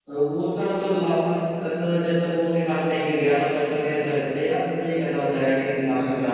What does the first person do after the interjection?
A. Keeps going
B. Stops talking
B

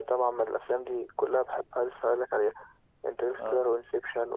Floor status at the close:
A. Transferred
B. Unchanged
B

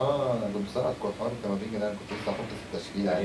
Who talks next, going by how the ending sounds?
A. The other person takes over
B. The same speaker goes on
A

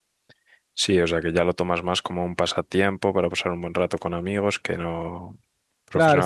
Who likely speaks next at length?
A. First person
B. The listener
B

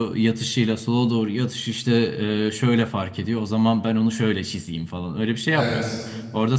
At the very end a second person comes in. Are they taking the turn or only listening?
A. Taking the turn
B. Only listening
B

